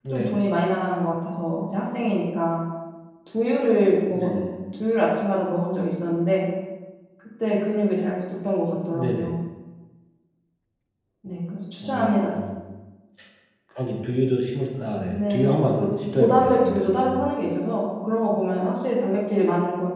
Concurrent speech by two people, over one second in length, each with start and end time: 15.1-17.2

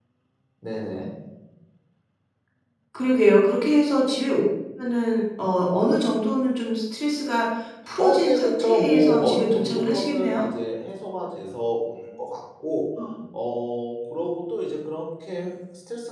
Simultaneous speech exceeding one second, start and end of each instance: 8.0-10.5

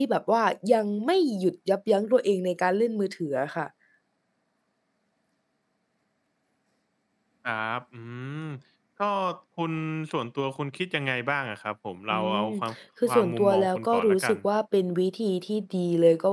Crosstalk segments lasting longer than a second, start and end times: 13.1-14.3

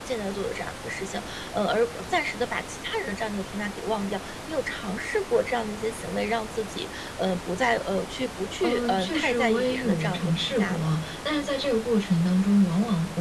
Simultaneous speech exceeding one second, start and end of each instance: 8.6-10.9

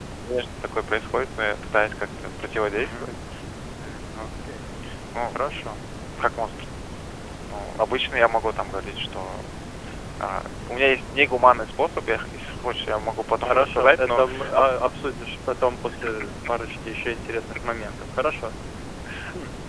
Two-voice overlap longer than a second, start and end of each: 13.4-14.7

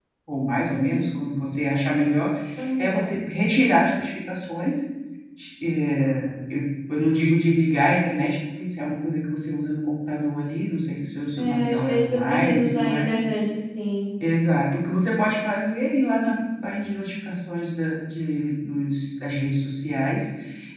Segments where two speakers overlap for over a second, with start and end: 11.4-13.1

